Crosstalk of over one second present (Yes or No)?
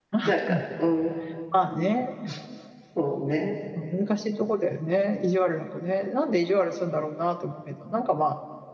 No